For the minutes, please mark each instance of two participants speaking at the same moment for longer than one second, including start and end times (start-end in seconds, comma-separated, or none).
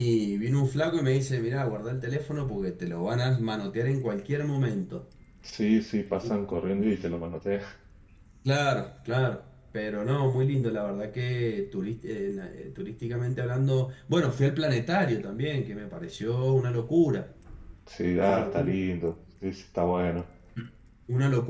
none